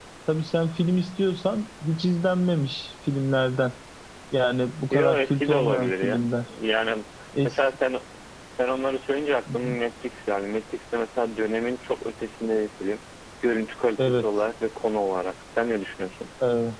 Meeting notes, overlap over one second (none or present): present